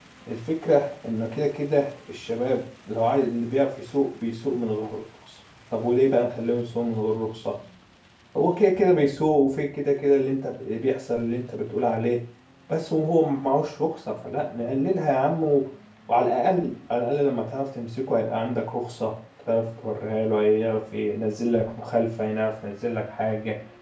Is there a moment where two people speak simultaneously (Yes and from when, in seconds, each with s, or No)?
No